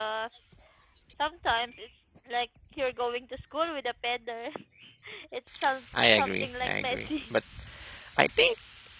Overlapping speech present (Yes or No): Yes